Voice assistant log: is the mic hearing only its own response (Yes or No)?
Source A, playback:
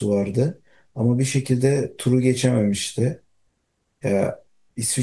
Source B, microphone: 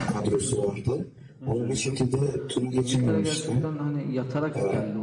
No